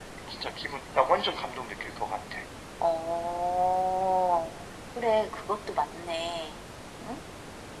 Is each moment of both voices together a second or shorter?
Yes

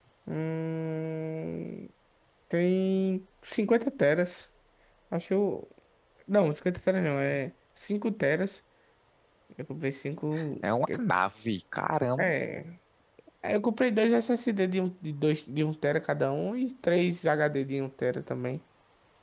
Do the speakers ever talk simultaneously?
No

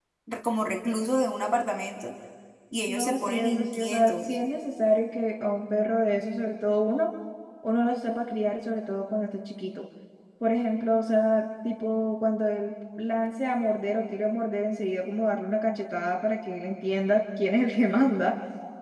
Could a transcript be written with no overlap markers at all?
No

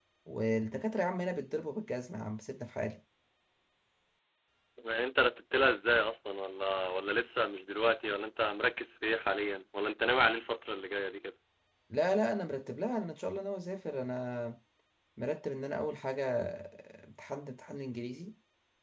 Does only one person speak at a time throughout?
Yes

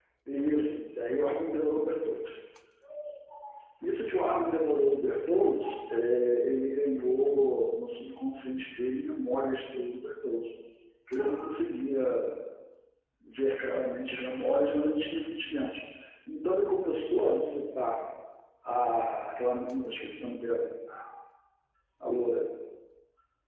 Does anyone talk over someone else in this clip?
No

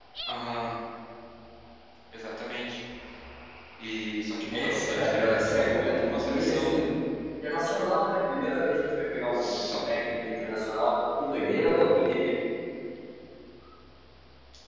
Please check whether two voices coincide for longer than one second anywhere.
Yes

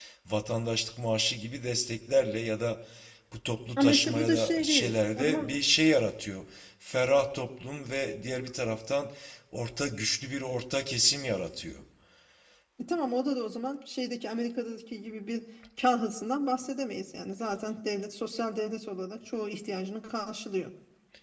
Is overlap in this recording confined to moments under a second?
No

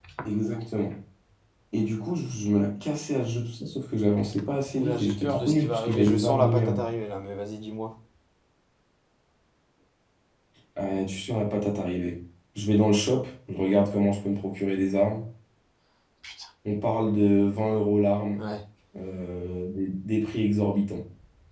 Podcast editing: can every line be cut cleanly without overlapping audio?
No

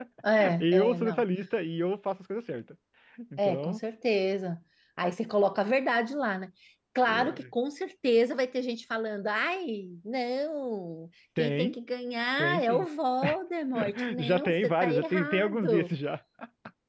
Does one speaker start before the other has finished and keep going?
Yes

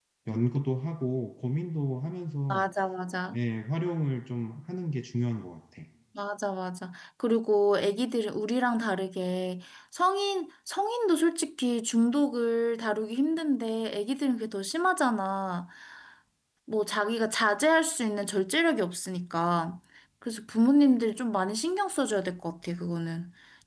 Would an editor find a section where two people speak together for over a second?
No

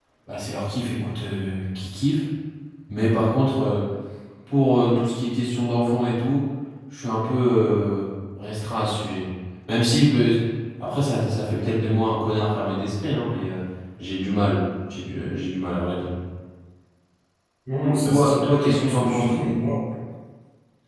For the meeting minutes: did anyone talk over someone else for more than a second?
Yes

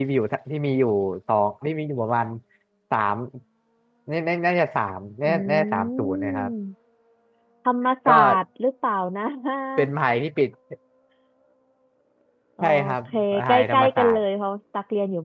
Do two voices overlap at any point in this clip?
Yes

